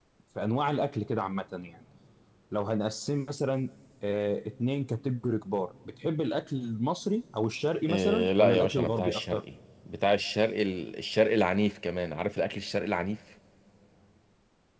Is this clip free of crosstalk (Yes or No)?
No